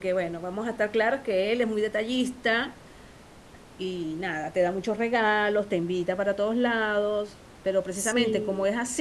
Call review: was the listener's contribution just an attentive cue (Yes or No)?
Yes